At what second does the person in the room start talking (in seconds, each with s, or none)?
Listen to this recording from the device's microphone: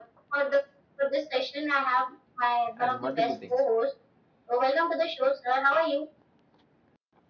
2.8 s